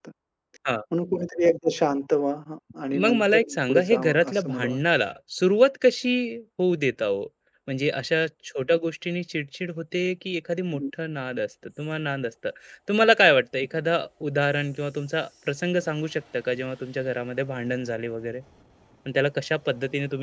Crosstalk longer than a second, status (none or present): present